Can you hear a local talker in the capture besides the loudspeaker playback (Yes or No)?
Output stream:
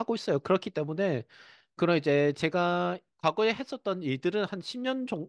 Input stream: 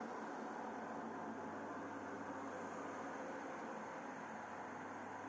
No